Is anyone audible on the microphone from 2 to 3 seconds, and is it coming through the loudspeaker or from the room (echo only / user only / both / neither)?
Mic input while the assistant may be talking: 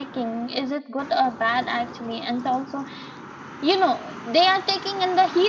echo only